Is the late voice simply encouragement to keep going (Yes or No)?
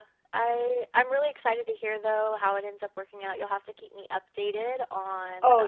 No